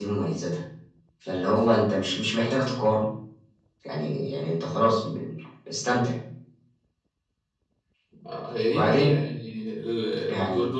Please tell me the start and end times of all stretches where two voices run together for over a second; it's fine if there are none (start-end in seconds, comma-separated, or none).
none